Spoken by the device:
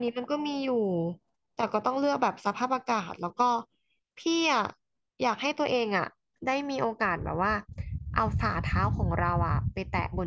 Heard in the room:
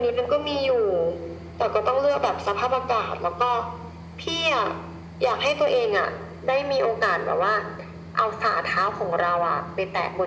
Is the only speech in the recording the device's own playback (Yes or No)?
Yes